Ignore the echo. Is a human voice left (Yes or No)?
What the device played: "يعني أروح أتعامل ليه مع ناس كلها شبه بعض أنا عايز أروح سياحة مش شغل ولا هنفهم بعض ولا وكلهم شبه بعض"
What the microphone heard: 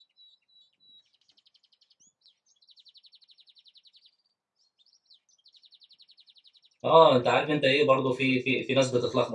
Yes